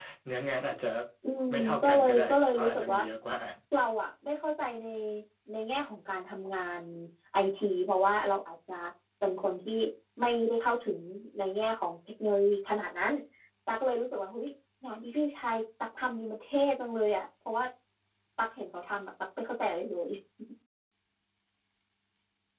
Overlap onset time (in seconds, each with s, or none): 1.8 s